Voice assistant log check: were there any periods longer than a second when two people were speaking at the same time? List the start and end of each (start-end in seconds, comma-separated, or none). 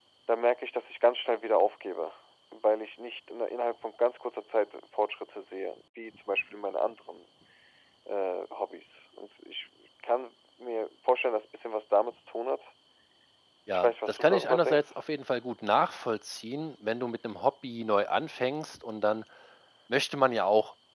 13.7-15.0